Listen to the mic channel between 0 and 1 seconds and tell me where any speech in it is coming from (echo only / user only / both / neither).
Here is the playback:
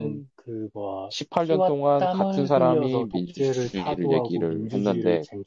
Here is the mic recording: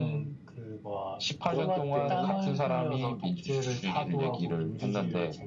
echo only